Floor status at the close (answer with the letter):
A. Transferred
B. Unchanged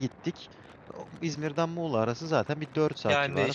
A